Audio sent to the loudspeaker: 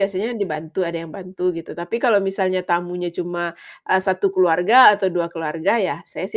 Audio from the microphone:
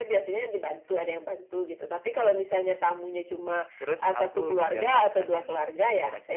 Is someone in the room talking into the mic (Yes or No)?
Yes